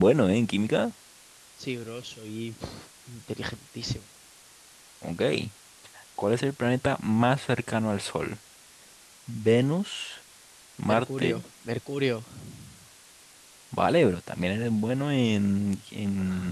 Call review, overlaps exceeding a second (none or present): none